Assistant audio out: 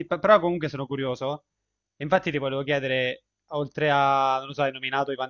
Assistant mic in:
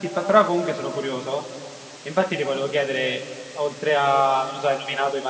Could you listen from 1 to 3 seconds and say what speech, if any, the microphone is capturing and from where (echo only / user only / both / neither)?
echo only